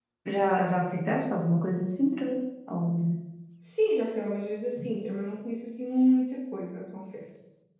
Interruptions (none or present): none